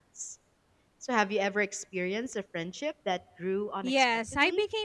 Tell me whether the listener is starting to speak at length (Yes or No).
Yes